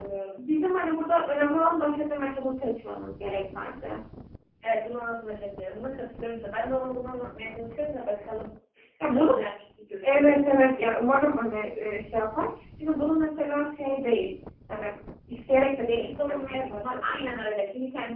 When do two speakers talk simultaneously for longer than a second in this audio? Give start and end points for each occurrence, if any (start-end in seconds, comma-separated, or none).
15.9-17.2